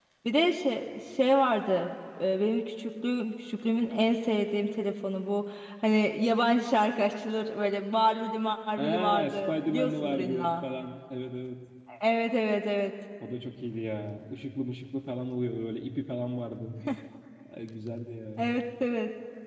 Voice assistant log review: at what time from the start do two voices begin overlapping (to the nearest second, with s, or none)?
9 s